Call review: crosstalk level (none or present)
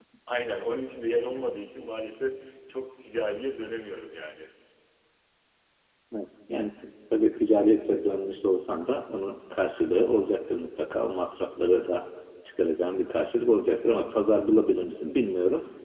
none